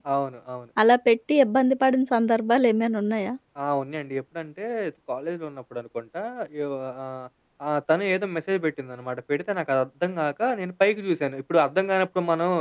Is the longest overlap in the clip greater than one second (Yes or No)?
No